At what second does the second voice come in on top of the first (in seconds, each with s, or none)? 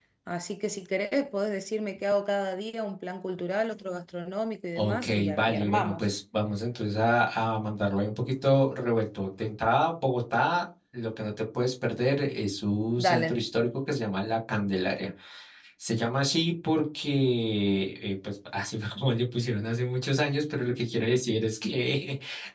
4.8 s